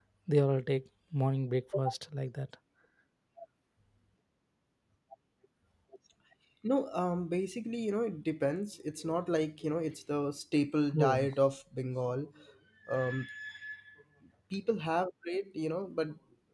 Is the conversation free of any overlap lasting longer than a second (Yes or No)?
Yes